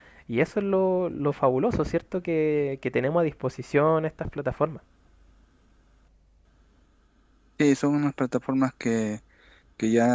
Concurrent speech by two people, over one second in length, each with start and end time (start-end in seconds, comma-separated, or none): none